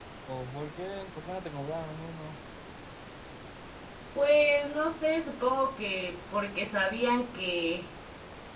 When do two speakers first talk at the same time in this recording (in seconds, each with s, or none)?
none